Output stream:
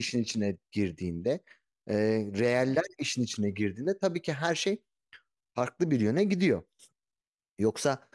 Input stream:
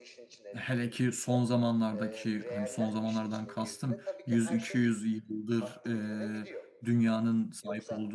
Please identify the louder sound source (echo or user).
user